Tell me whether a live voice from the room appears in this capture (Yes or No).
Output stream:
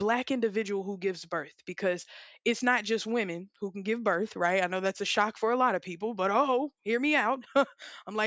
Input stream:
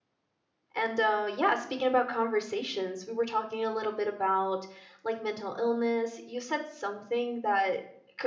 Yes